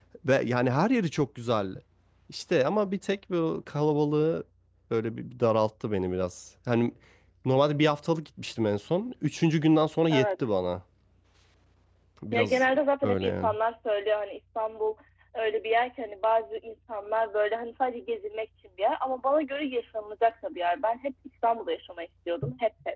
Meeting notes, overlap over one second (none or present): none